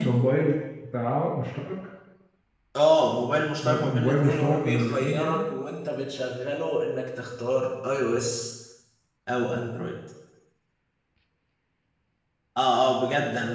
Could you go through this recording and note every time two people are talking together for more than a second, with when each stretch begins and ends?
3.6-5.4

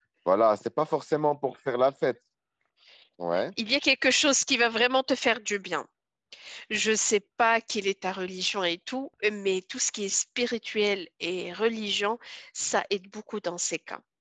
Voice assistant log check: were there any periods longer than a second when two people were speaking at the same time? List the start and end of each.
none

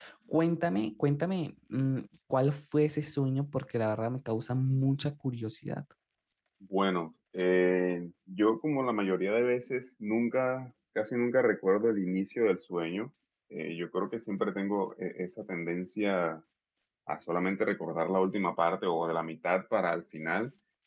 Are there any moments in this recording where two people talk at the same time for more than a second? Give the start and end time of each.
none

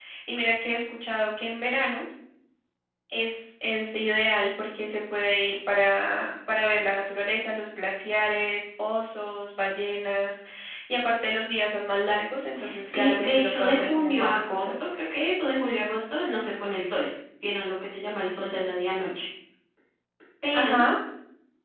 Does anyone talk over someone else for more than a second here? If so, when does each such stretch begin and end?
12.8-14.7

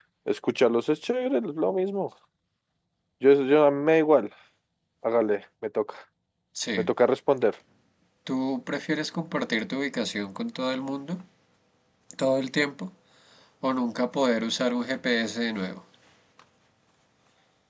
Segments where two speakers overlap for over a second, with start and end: none

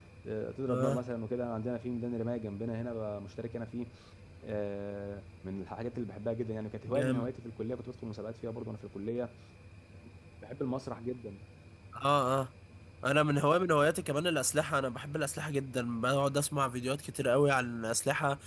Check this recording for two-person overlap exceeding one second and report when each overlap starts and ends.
none

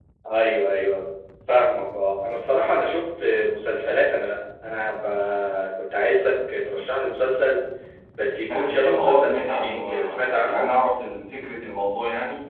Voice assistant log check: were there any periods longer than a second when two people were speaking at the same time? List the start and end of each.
8.5-10.7

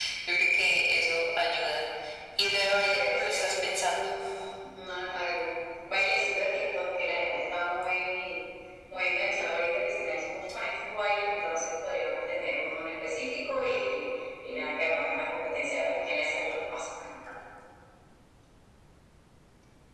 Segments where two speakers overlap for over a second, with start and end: 2.5-4.0

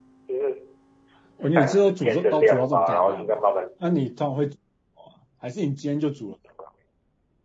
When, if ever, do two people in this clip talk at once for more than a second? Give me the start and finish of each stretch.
1.4-3.4

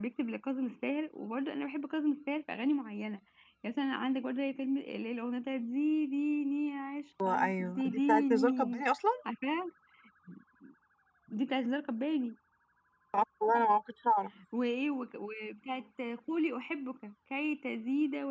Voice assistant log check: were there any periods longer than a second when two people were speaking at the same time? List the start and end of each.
7.4-8.8

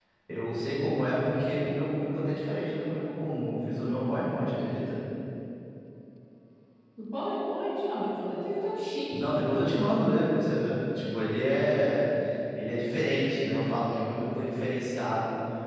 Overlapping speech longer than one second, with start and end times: none

